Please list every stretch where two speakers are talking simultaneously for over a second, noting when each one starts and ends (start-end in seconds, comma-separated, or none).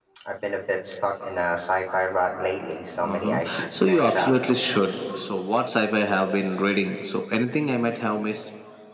3.0-4.4